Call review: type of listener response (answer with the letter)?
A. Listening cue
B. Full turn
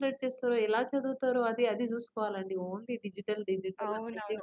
B